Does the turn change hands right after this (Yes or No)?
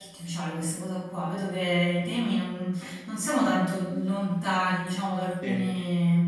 No